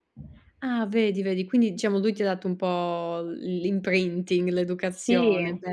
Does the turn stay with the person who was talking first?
No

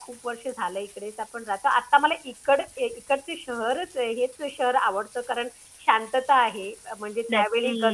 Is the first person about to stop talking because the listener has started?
No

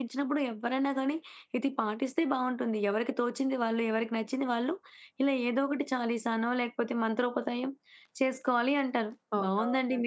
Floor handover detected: No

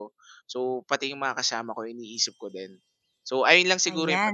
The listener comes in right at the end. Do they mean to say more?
Yes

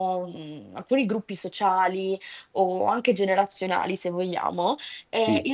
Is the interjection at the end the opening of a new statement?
No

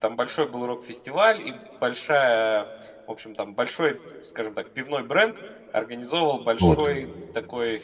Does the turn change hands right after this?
No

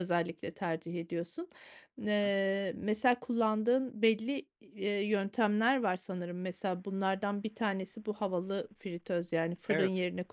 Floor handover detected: No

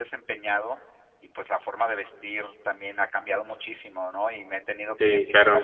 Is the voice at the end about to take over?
No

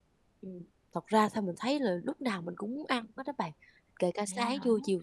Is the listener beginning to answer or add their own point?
No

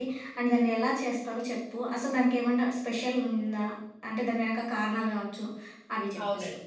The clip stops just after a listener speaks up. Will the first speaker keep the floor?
No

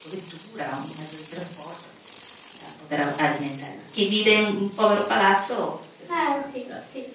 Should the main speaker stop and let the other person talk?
Yes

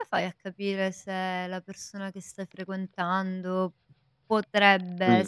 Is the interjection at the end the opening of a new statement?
No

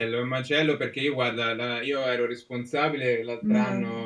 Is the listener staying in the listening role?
Yes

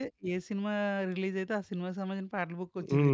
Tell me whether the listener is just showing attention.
No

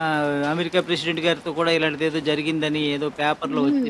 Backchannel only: No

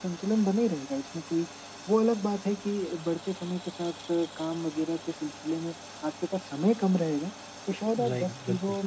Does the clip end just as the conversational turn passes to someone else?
No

